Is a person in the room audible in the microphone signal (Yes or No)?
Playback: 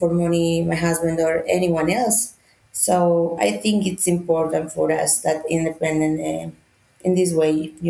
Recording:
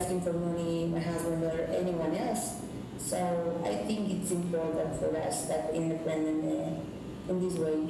No